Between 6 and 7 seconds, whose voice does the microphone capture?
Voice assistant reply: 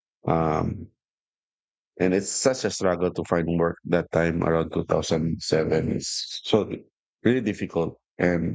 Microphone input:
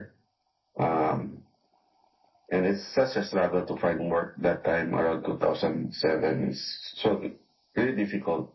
echo only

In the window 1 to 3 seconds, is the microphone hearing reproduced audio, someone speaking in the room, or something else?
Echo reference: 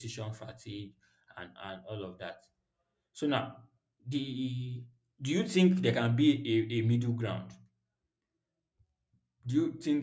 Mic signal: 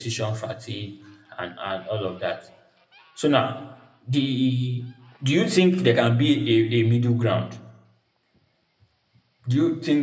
echo only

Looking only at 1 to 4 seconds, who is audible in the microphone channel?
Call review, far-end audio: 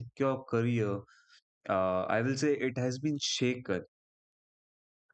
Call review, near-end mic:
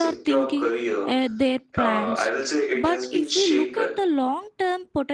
both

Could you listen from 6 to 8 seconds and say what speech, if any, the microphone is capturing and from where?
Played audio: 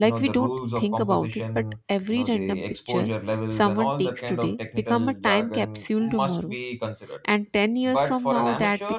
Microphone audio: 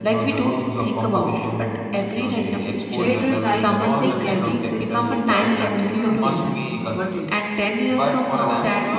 both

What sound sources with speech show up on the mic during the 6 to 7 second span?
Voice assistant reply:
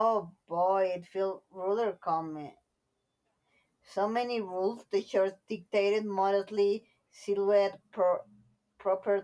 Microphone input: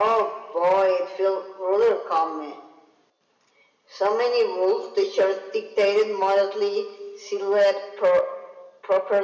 echo only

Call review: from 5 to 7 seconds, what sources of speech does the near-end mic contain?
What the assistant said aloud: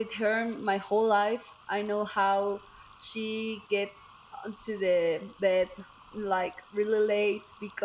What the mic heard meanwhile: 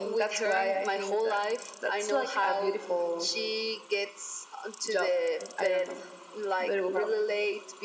both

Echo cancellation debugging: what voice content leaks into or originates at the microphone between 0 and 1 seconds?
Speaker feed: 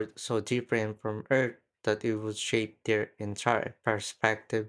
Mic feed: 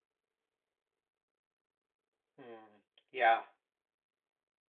neither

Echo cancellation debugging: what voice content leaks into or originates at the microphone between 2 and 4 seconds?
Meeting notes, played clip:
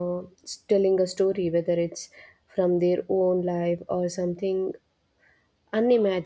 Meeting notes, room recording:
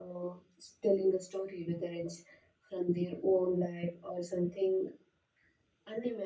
echo only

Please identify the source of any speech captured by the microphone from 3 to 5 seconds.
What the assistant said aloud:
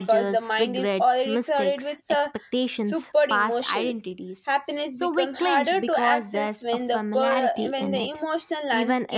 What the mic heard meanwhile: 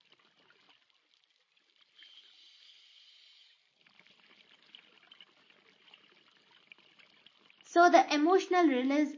neither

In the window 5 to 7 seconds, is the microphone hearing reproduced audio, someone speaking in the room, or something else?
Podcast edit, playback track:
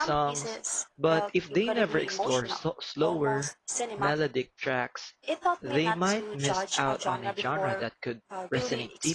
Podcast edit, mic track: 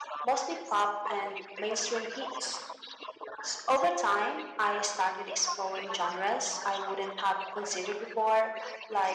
both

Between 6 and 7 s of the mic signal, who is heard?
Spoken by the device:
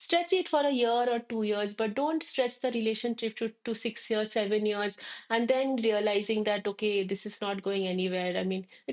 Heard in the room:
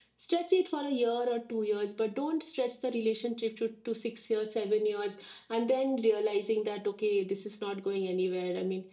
echo only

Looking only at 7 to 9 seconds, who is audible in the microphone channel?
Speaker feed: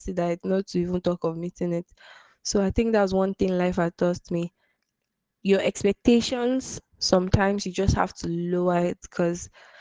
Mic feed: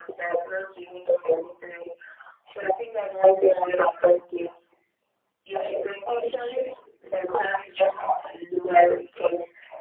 echo only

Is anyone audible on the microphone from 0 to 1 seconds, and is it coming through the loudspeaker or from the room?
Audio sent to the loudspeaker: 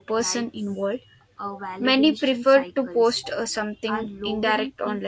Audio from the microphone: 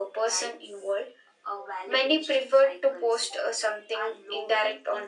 echo only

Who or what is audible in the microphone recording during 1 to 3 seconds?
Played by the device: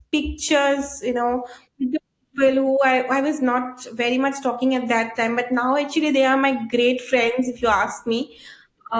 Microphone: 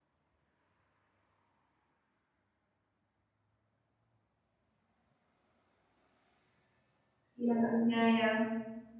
neither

